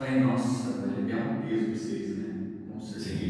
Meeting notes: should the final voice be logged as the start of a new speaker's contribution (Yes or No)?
Yes